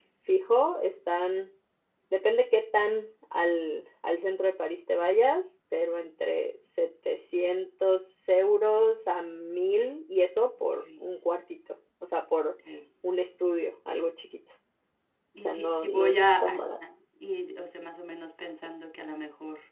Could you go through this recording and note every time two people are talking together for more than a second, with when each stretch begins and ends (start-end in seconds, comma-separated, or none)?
15.4-16.8